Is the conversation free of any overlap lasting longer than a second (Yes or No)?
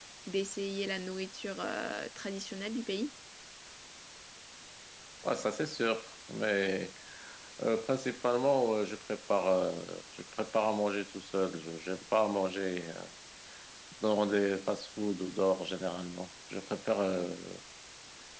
Yes